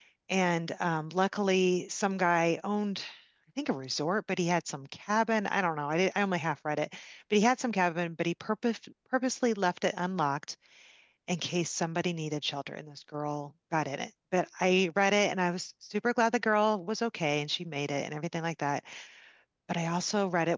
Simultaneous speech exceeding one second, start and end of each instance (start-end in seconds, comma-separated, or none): none